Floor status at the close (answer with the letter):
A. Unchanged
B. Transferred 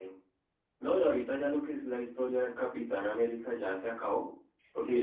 A